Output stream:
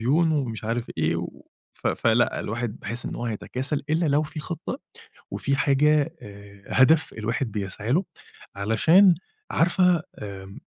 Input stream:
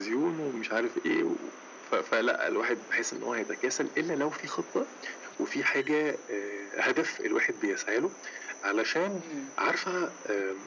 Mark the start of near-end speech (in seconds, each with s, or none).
9.2 s